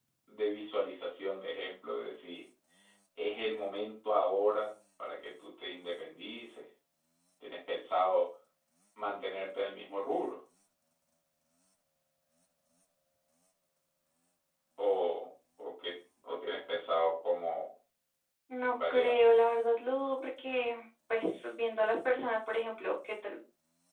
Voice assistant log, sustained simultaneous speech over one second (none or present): none